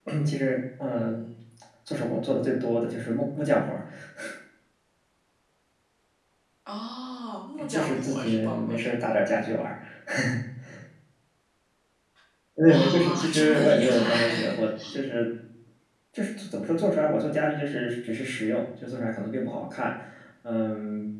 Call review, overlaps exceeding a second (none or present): present